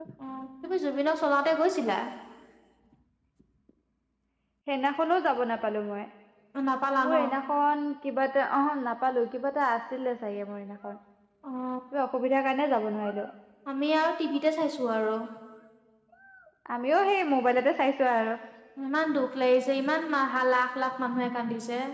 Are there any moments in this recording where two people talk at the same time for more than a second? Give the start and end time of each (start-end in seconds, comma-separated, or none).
none